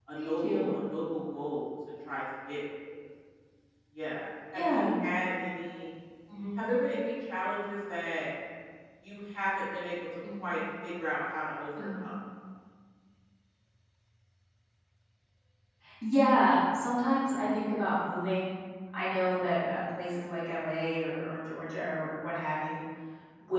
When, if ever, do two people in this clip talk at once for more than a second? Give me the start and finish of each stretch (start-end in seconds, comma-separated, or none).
none